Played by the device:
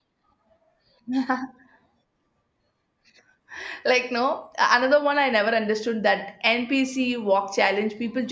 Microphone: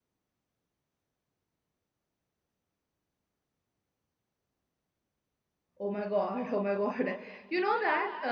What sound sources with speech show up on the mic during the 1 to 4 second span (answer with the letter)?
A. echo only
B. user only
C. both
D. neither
D